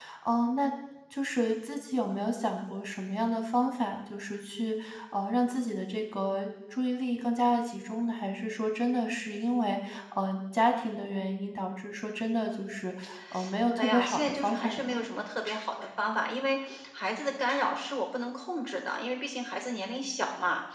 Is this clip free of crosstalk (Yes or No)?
No